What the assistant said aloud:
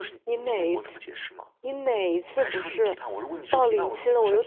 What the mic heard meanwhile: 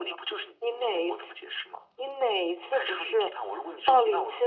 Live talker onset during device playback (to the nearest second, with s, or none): none